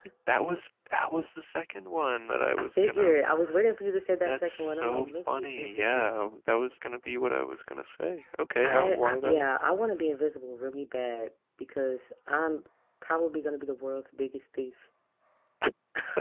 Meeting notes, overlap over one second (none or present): present